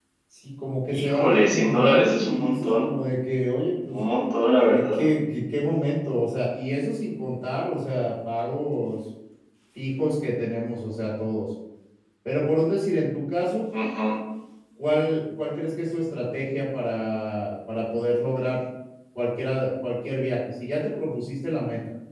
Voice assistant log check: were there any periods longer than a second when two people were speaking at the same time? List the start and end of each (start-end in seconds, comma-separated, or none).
0.9-2.8